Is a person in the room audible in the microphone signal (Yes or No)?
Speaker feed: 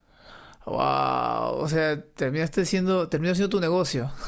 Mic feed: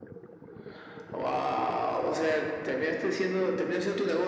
No